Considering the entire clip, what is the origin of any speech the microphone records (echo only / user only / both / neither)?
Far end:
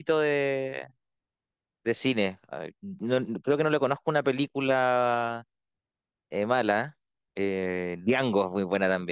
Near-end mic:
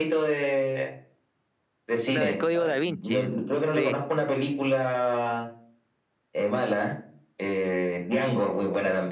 both